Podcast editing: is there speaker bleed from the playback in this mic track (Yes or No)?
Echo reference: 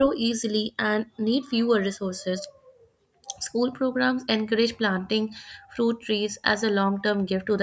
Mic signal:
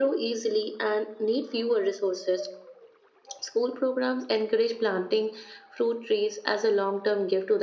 Yes